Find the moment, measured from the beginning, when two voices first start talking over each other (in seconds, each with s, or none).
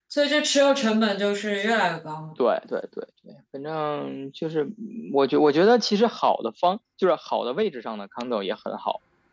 none